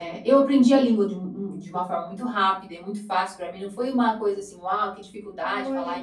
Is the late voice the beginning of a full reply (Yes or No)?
Yes